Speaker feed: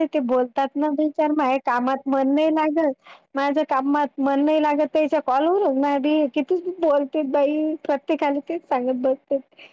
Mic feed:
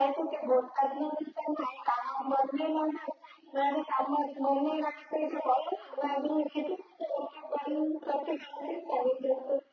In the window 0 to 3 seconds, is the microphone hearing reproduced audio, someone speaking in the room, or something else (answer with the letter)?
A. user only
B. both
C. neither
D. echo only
D